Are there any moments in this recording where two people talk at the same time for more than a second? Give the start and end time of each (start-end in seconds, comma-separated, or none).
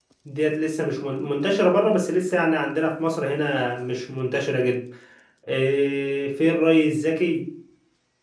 none